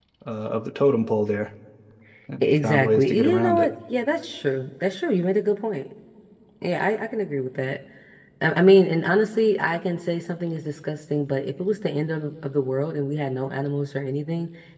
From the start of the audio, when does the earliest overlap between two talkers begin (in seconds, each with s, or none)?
2.4 s